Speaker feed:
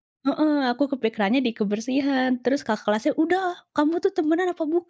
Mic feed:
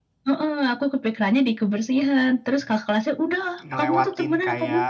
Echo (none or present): present